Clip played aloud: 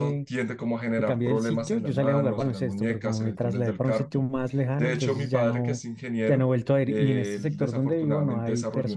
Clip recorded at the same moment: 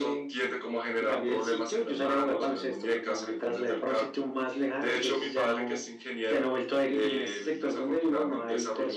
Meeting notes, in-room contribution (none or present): none